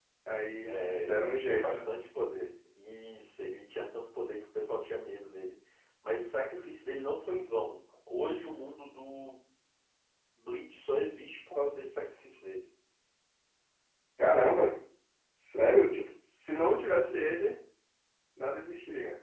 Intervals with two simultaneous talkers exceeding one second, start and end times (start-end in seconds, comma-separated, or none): 0.6-1.9